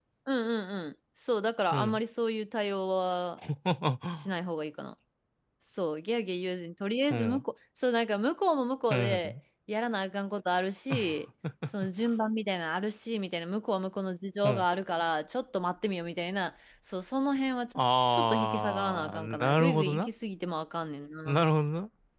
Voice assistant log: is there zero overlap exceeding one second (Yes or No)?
No